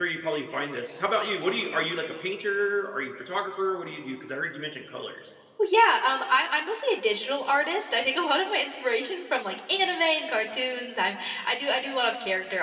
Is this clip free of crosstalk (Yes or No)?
Yes